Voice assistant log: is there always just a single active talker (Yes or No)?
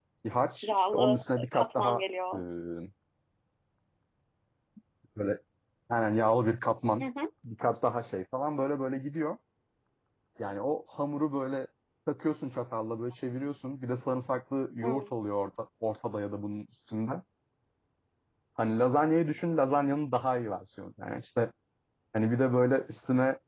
No